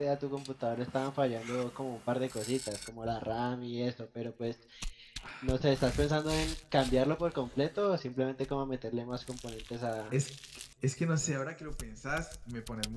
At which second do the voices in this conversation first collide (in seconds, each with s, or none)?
none